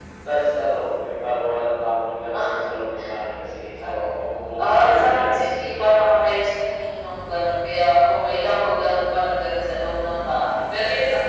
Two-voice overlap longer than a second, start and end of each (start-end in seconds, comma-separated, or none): 4.6-6.0